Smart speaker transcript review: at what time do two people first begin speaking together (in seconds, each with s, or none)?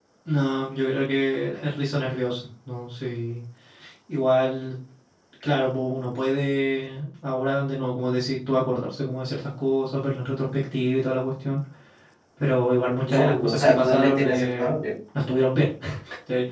13.0 s